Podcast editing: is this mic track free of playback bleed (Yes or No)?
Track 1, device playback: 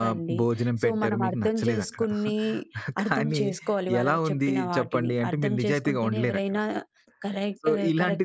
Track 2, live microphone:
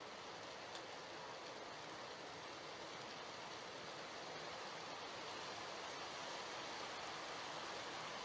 Yes